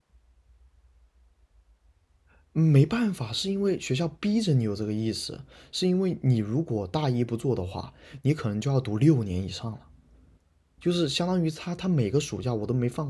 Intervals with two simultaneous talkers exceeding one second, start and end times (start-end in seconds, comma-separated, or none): none